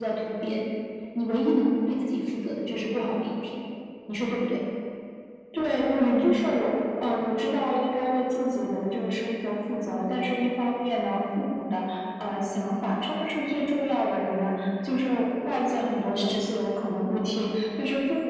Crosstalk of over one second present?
No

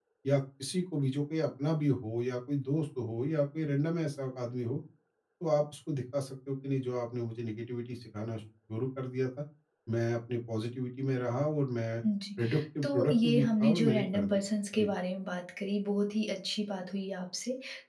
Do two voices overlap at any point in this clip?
Yes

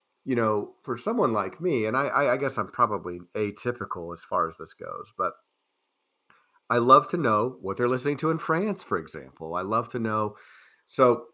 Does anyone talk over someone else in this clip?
No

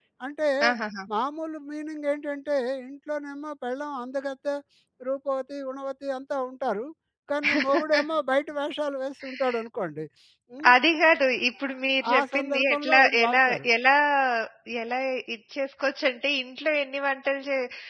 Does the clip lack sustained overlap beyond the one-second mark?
No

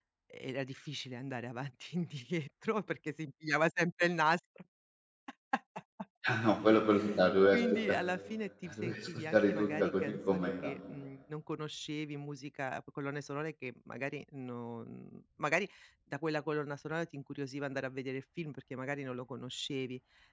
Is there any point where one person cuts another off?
Yes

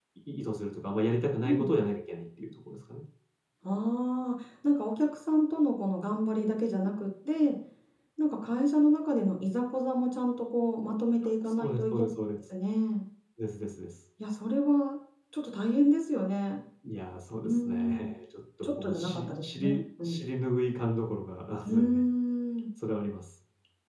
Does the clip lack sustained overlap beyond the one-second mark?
No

